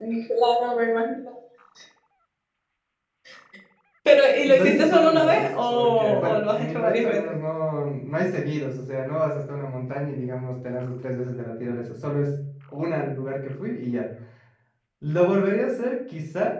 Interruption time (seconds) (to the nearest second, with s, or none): 4 s